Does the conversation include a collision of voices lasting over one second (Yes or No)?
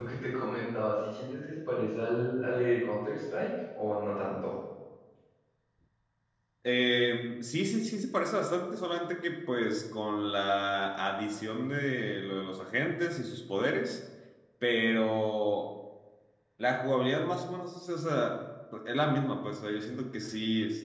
No